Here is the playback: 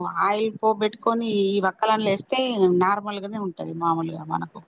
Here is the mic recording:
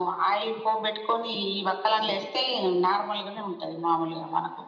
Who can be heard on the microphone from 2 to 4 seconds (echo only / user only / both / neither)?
echo only